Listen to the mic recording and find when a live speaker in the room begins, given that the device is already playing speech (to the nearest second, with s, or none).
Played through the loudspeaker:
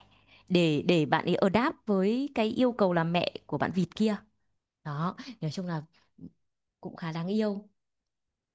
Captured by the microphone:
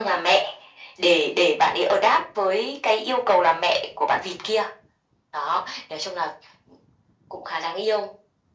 none